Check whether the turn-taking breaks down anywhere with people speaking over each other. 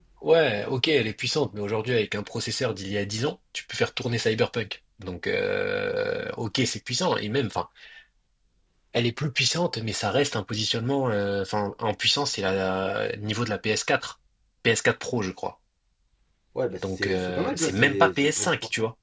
Yes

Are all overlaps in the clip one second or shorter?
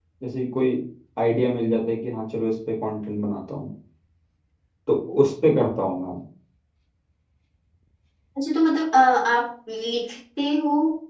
Yes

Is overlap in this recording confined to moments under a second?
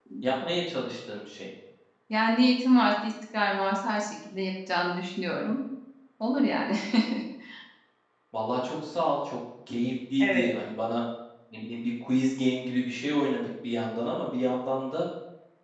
Yes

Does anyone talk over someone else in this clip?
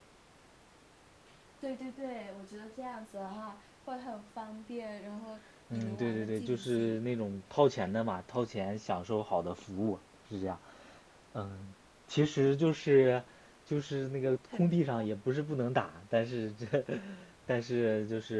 Yes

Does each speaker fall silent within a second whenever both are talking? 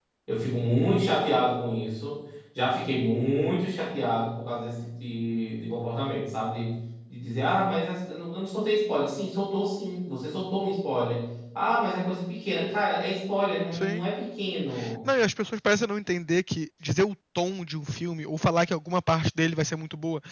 Yes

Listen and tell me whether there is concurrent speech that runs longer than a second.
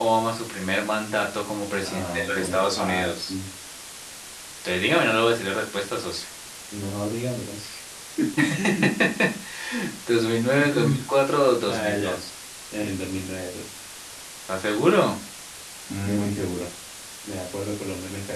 Yes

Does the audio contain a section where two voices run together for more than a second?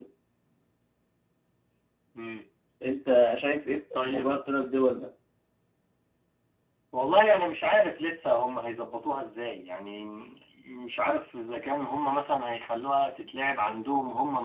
No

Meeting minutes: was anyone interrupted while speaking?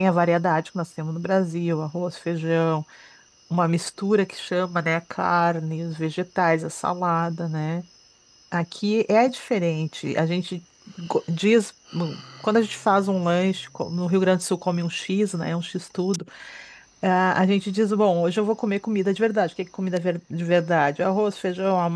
No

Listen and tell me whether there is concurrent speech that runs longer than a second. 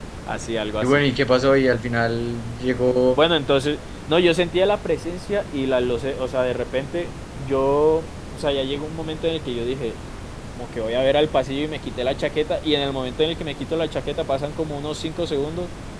No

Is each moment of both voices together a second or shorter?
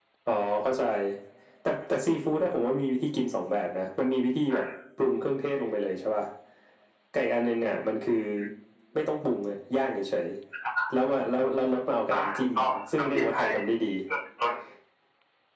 No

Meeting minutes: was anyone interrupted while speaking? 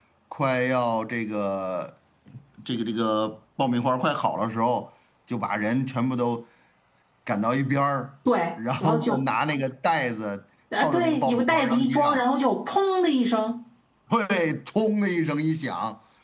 Yes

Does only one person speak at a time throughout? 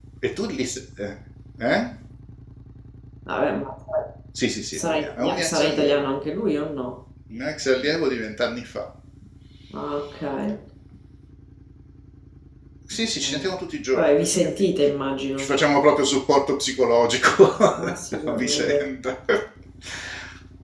No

